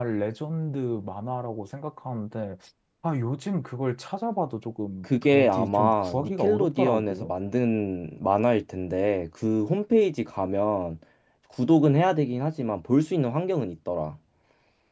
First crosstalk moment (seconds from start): 5.0 s

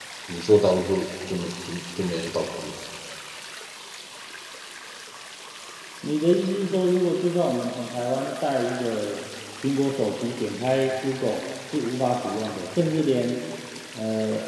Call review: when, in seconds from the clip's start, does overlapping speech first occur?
none

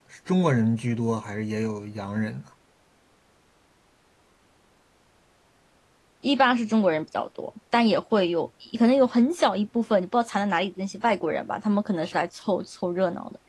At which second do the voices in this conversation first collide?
none

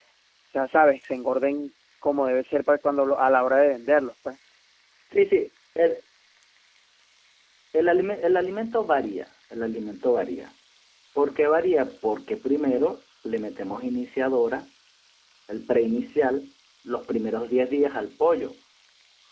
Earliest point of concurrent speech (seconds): none

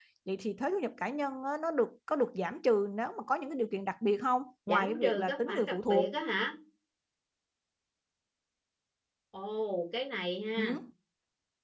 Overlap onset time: 4.7 s

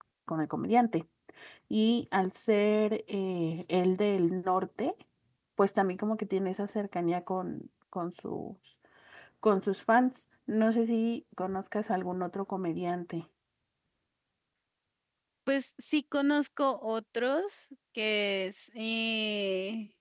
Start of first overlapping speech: none

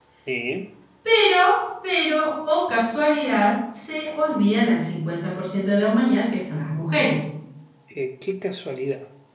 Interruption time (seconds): none

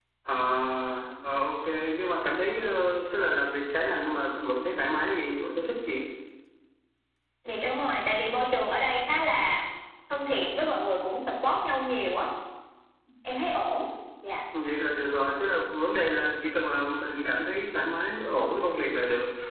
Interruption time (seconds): none

